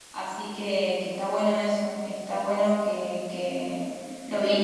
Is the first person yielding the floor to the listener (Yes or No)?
Yes